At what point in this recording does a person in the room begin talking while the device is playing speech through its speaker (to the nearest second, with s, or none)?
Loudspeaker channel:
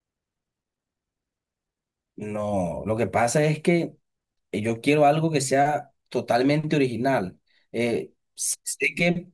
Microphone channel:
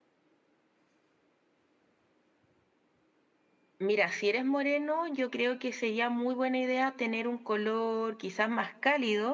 4 s